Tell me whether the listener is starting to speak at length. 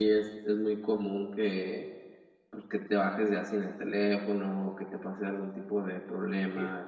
Yes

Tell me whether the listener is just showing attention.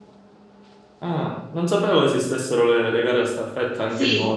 No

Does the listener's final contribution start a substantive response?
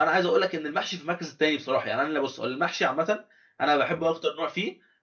No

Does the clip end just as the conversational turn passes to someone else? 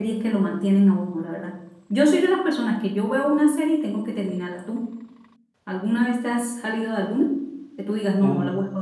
No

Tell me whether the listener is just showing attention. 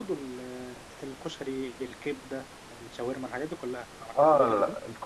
No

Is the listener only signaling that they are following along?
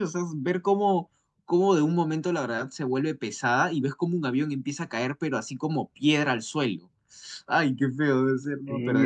No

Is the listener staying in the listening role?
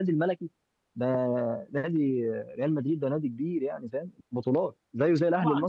No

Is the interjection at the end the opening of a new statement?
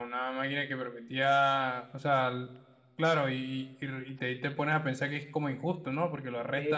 Yes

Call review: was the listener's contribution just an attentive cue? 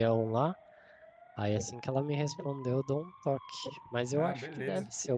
Yes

